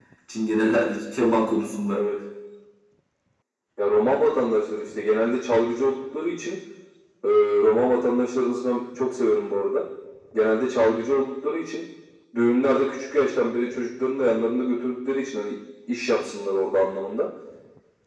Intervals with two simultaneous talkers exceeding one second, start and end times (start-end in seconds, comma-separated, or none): none